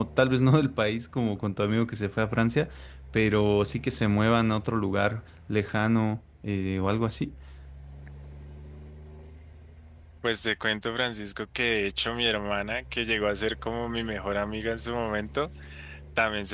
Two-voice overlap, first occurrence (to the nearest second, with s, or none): none